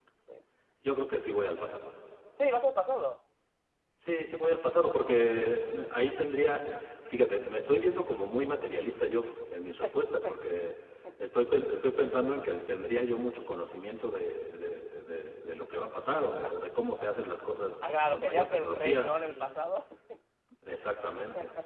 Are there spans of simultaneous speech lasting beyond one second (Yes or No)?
Yes